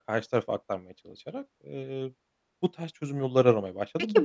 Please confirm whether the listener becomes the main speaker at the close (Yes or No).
Yes